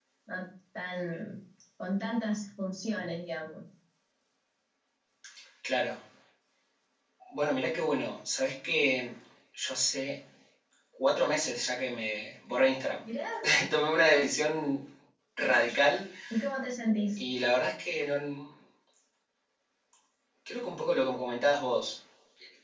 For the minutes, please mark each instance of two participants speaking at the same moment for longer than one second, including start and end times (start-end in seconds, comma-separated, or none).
none